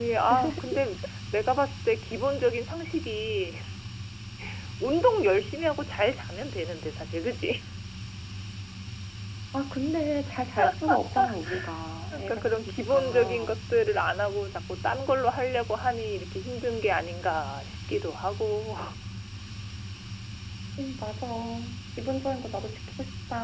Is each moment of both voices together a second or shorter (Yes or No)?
No